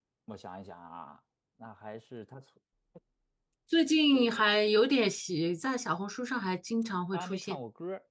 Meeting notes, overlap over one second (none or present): none